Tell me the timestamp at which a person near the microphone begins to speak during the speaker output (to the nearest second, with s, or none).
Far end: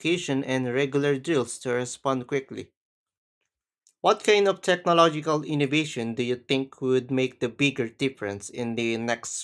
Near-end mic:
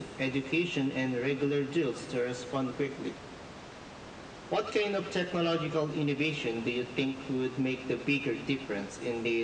none